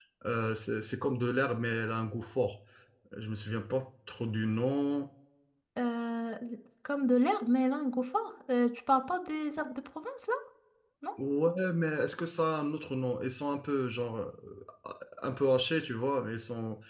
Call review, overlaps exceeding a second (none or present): none